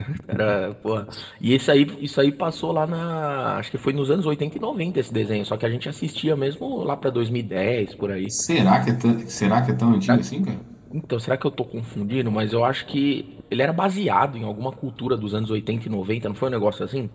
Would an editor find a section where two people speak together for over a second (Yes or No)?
No